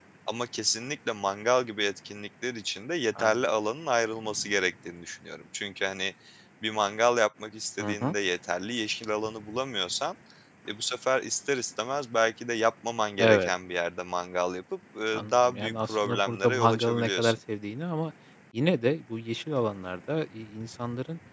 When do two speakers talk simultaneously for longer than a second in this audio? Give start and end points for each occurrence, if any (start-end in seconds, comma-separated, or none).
15.1-17.4